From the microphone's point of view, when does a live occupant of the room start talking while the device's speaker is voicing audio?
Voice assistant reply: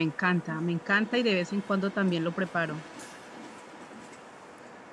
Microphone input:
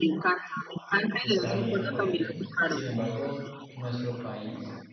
1 s

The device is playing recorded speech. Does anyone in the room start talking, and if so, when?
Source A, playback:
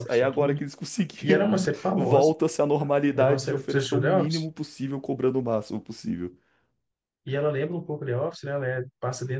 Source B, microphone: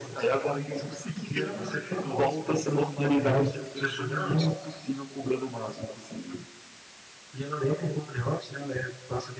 none

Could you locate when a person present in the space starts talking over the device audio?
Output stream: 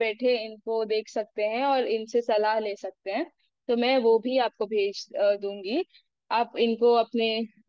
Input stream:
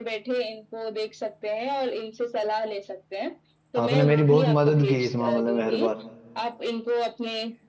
4 s

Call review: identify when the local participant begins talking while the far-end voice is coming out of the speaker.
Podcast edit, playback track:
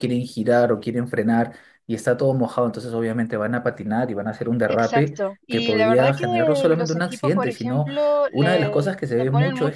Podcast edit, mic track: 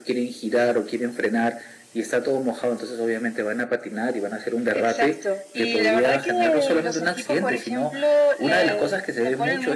none

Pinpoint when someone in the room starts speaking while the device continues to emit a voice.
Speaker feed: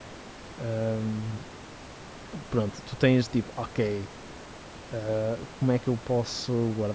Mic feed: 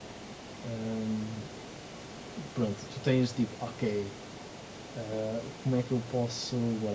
none

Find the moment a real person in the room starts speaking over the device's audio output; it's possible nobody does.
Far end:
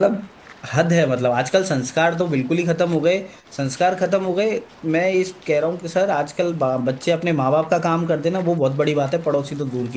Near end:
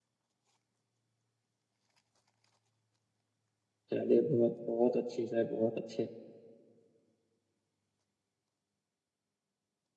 4 s

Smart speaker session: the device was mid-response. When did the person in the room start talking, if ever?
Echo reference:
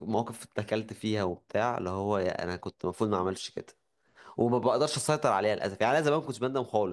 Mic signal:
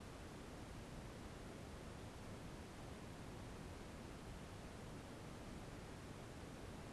none

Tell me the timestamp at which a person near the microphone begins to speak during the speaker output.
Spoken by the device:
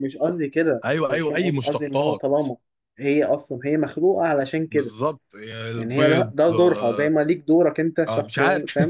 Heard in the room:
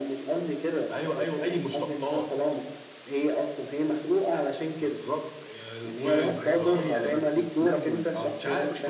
6 s

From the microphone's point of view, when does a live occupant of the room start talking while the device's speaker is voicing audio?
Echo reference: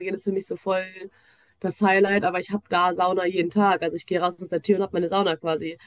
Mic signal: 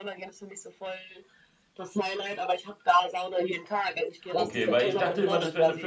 4 s

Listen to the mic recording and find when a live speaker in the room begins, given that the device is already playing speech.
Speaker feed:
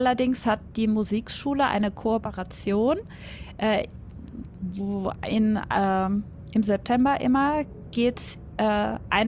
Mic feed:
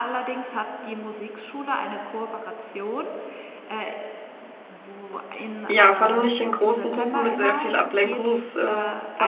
6 s

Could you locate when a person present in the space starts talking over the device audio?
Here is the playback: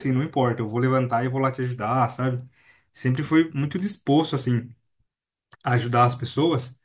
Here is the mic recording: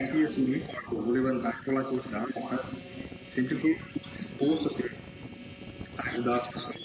none

